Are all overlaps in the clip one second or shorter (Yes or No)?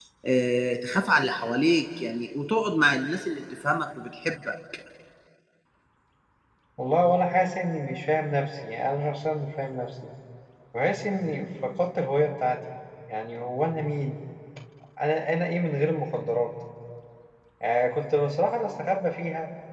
Yes